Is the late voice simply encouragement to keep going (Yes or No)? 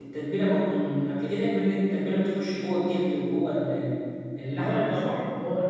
No